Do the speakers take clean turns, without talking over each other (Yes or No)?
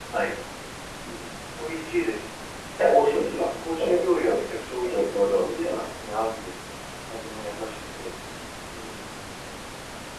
No